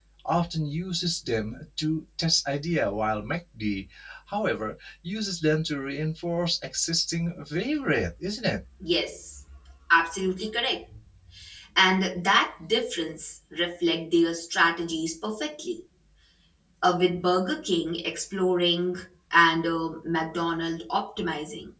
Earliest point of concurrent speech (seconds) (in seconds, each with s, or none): none